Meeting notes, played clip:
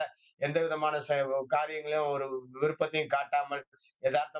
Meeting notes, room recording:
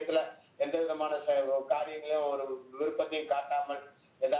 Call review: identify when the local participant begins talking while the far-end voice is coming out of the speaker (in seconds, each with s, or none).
none